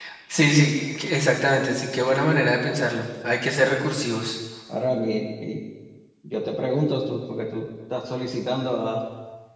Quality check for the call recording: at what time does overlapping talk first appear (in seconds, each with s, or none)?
none